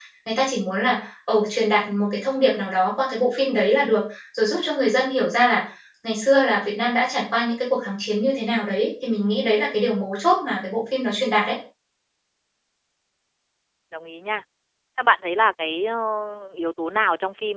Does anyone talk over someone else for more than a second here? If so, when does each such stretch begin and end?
none

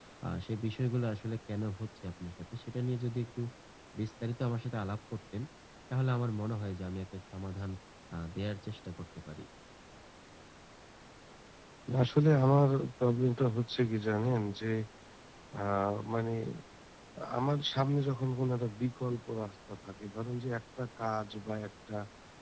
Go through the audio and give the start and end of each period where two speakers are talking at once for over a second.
none

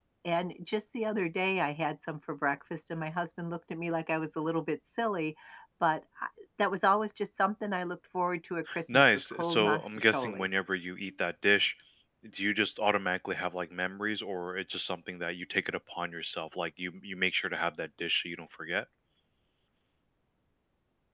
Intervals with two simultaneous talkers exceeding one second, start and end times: 8.9-10.5

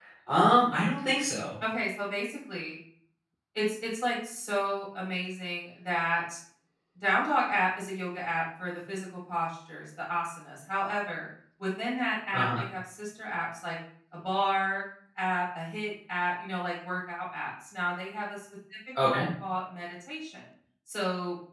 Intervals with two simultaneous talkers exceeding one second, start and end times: none

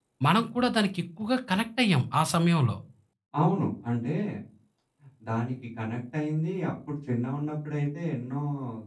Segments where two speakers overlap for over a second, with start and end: none

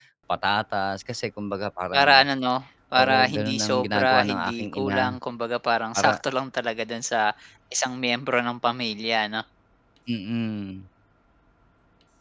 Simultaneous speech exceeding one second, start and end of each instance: 3.0-5.0

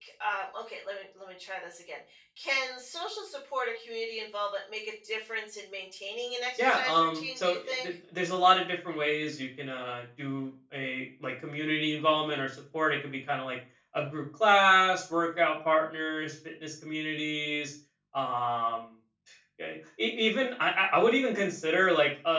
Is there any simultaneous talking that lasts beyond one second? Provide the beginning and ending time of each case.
6.6-7.9

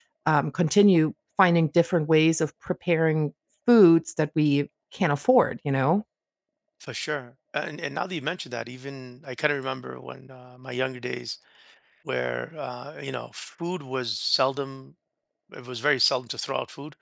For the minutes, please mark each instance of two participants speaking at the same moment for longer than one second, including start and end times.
none

